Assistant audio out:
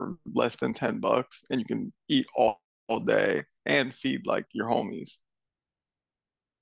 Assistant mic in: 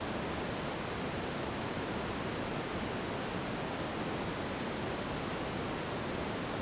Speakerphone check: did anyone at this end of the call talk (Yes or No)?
No